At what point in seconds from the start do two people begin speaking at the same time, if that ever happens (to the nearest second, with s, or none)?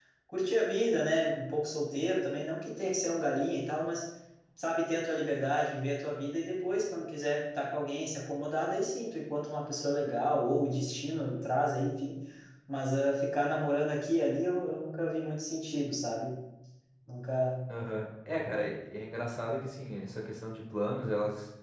none